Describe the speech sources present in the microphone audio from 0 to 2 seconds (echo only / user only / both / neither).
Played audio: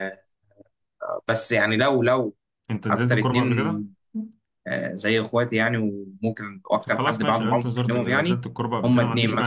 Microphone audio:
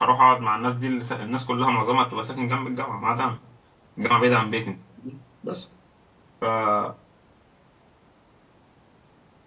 user only